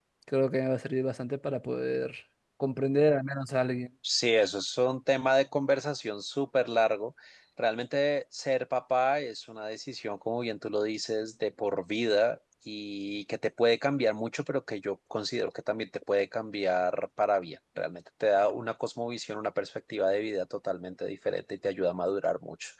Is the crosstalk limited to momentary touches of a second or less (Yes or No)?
Yes